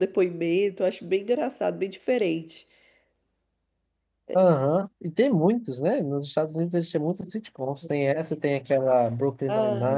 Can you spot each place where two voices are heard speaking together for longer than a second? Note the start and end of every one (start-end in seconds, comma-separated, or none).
none